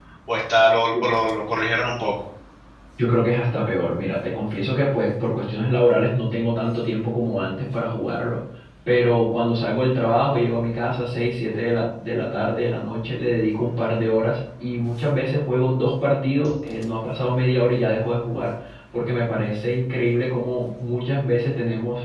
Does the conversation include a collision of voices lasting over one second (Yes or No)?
No